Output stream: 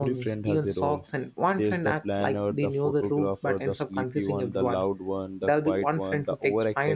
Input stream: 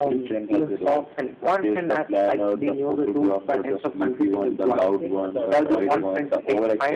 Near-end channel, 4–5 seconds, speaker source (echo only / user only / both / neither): both